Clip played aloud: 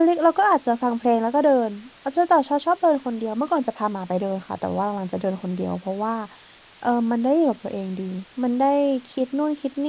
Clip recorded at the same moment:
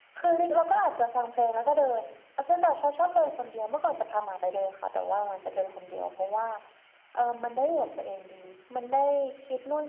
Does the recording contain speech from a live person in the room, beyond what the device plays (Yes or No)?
No